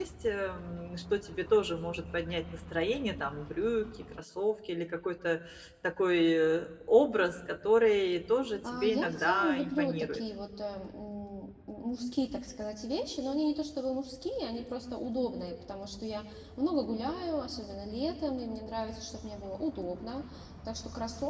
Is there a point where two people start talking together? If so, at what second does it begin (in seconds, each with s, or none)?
8.6 s